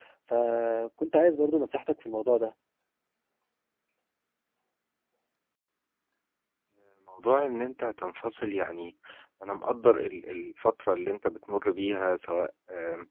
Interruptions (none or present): none